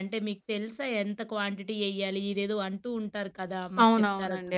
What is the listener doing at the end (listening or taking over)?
taking over